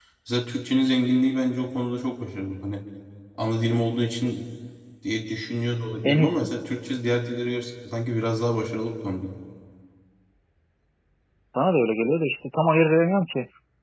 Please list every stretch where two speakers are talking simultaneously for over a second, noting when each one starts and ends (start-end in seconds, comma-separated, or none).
none